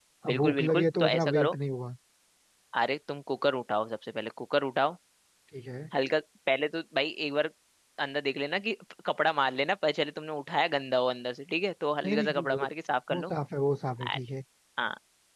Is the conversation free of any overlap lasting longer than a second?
No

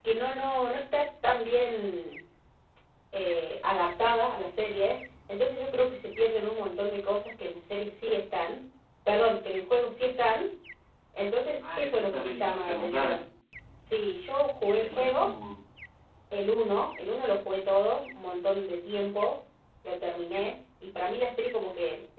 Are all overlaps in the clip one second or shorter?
No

